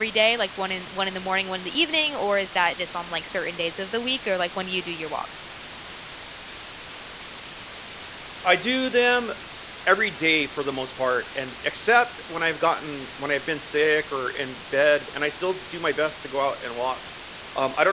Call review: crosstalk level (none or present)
none